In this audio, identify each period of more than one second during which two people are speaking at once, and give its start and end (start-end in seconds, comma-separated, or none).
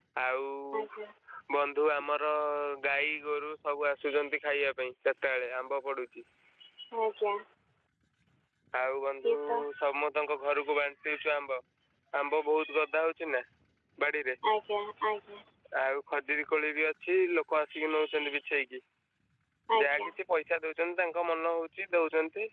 none